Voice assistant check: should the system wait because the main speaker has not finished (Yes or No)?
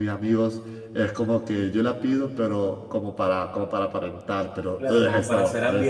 No